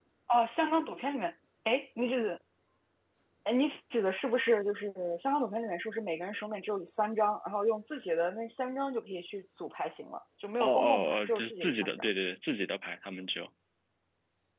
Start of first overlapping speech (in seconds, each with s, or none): 10.6 s